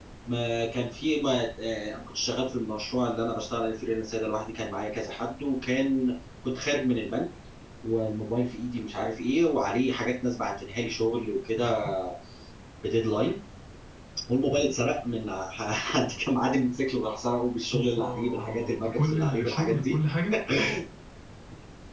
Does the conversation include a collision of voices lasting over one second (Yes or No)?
Yes